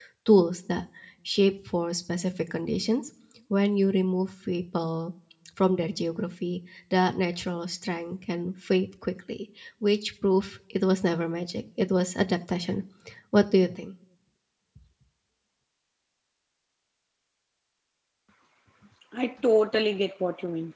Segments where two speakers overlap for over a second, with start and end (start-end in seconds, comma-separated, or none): none